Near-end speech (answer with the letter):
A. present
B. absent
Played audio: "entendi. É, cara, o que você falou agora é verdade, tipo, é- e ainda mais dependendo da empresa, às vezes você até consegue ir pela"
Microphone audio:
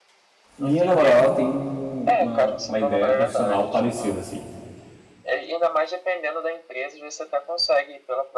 A